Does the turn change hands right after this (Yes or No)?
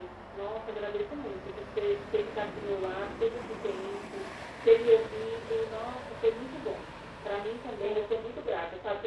No